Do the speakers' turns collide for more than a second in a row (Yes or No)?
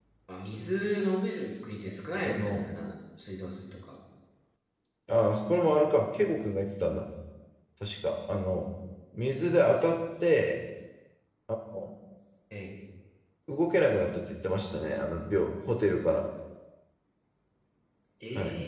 No